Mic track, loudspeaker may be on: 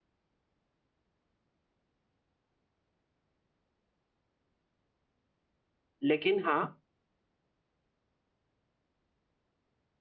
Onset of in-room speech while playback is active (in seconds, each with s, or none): 6.0 s